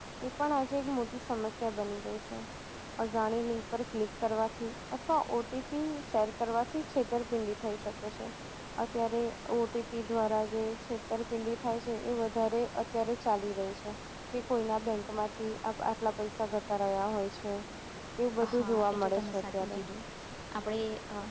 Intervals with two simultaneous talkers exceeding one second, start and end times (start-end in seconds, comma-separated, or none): 18.6-19.8